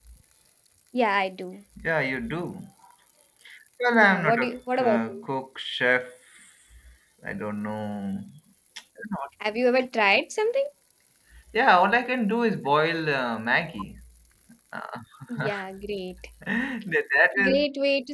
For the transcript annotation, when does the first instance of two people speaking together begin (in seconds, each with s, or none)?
3.9 s